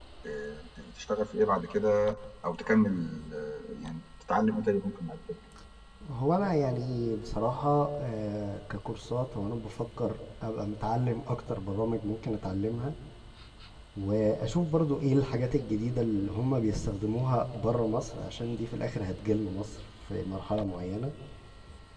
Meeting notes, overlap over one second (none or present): none